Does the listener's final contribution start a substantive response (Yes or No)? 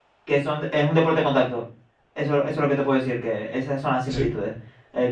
No